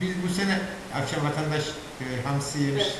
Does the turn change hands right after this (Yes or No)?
No